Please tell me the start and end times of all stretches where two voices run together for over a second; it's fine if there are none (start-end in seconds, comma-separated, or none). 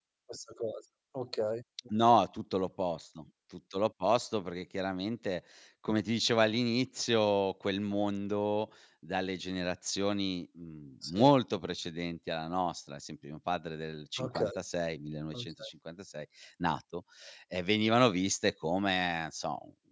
none